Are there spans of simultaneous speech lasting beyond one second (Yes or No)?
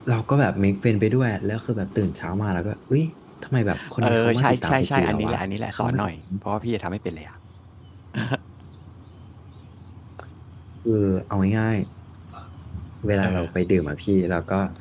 Yes